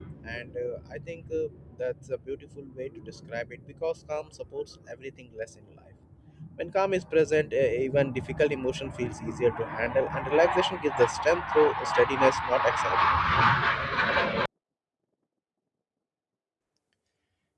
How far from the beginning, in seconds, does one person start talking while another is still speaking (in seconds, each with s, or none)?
none